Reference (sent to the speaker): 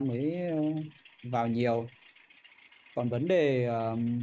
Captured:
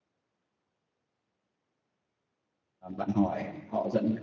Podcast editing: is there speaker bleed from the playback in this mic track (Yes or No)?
No